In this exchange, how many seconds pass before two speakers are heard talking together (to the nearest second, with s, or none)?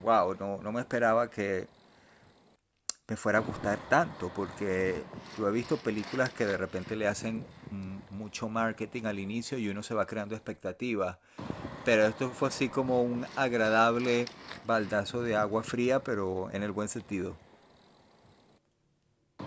none